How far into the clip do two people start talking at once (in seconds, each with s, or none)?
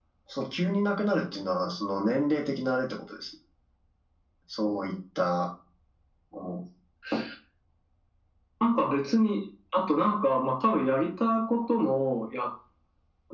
none